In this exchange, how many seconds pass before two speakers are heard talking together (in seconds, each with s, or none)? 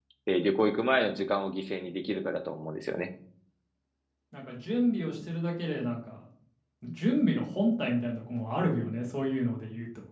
none